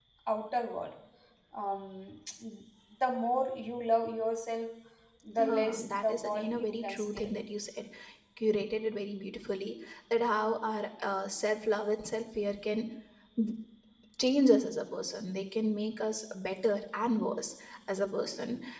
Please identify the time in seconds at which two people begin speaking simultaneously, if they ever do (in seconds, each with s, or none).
5.4 s